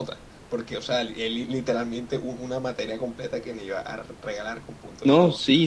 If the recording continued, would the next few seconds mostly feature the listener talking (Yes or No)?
Yes